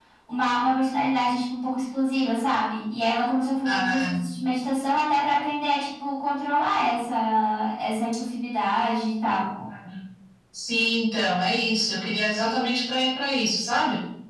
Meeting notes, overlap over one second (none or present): none